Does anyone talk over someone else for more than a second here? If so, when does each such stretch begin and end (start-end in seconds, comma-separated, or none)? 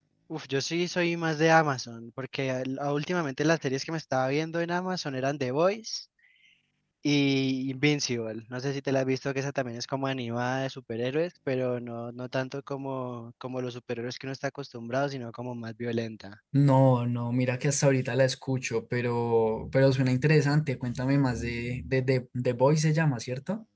none